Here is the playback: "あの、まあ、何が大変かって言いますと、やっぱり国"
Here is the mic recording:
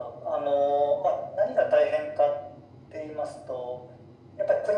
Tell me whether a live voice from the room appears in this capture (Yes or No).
No